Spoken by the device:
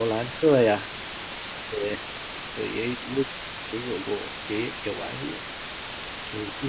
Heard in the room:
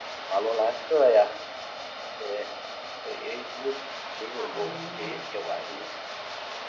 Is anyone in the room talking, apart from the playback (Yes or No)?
Yes